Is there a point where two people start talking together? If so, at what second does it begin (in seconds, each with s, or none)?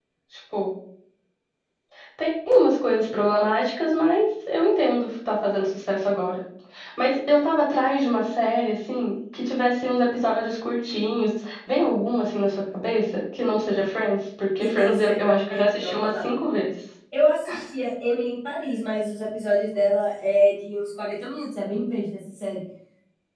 14.6 s